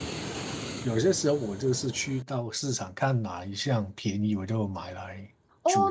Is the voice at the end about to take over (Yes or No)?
Yes